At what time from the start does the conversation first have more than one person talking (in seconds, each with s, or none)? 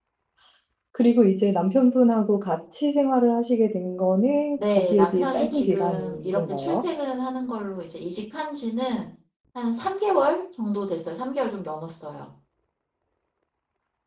4.6 s